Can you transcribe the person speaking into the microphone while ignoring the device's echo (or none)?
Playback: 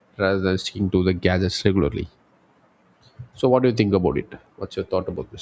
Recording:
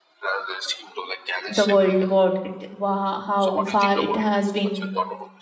the world what it, wha- how far it has been